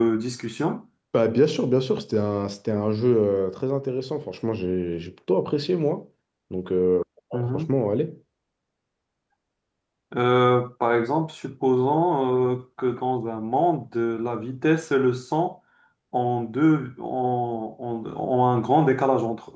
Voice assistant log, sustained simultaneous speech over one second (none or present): none